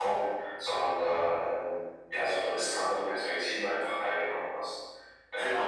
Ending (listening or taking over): taking over